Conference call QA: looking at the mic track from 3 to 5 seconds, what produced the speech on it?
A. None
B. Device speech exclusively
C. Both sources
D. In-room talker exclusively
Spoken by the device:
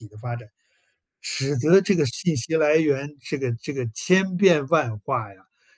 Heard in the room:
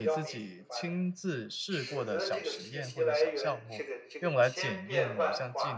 C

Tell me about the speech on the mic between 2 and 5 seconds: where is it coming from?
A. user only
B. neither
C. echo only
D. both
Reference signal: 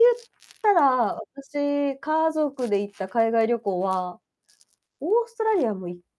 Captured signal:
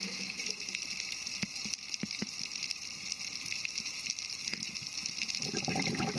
B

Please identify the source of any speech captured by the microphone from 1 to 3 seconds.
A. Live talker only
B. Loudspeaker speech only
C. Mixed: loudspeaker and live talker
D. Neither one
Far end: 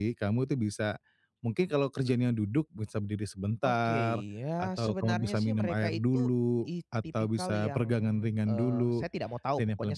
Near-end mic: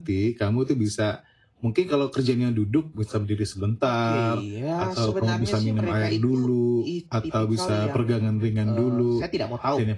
B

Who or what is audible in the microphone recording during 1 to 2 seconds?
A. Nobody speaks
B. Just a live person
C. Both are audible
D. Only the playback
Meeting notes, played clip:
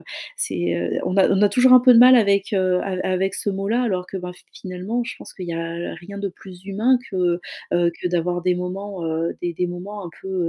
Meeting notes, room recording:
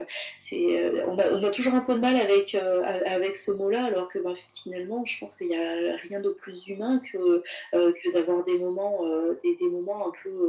D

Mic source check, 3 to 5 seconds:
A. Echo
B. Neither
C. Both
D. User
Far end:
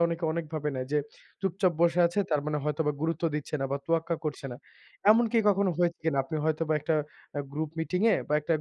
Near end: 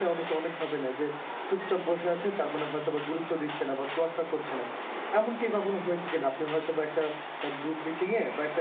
A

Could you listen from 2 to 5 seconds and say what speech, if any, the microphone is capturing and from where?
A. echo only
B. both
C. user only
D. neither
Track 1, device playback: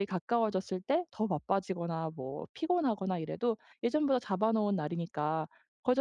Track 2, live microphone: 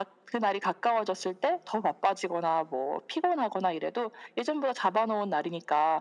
A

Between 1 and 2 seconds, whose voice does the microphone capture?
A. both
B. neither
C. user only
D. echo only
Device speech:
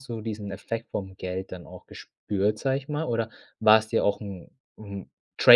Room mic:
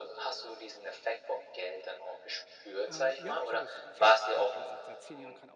D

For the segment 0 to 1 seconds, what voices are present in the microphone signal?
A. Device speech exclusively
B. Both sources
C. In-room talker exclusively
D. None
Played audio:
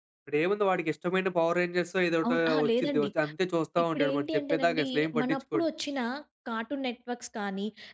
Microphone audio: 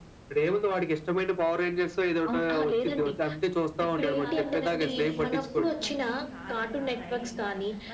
A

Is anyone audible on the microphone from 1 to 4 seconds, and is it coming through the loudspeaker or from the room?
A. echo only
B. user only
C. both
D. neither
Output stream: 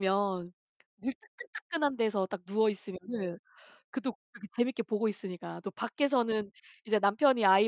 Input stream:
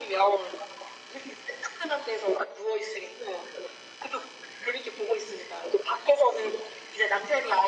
A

